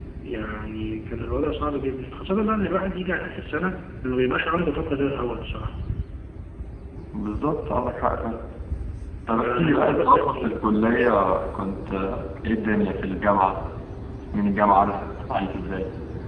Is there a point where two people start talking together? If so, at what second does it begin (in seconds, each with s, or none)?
9.4 s